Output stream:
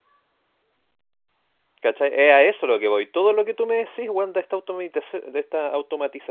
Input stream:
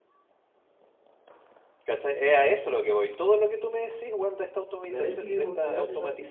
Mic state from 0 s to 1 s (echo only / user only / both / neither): neither